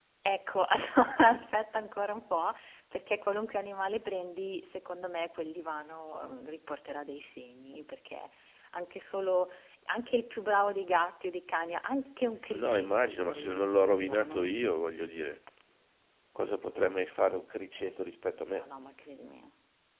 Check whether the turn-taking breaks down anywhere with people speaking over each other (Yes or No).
Yes